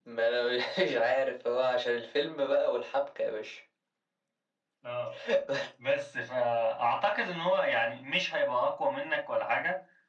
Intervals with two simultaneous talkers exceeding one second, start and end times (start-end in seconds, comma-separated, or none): none